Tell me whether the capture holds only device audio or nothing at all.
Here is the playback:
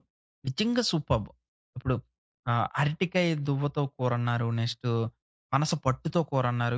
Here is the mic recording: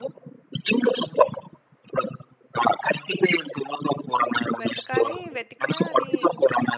No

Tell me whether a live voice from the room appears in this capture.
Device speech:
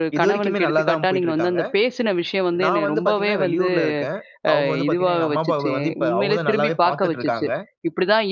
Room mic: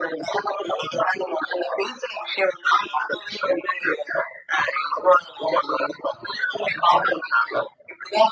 No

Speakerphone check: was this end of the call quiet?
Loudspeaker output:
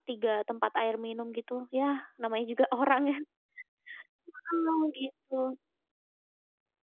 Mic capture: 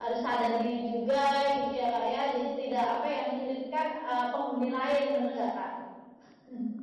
No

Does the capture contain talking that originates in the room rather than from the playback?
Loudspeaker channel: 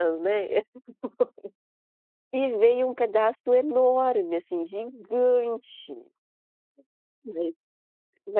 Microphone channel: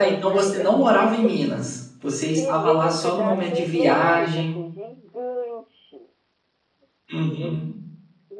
Yes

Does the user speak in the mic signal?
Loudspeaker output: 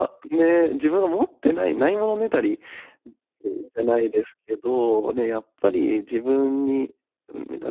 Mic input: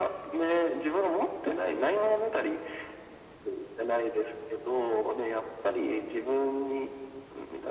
No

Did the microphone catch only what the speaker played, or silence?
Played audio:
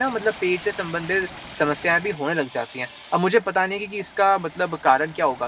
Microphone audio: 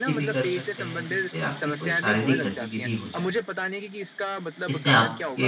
No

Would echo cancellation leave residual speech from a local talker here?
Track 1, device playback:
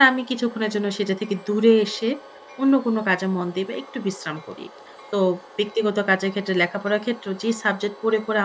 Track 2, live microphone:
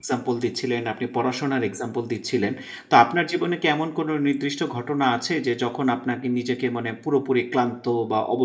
Yes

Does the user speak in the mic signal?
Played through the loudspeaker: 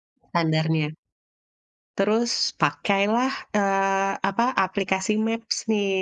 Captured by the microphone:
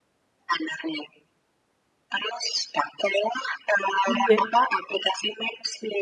Yes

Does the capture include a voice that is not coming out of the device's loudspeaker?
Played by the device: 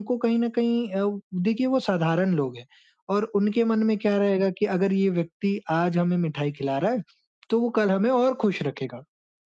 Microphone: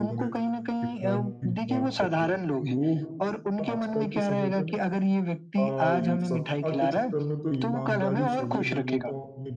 Yes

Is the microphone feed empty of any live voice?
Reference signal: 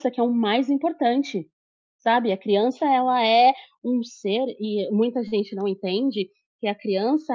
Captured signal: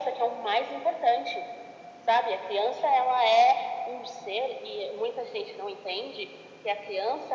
Yes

